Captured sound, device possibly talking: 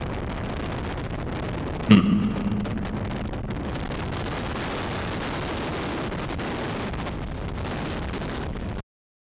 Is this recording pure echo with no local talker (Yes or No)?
No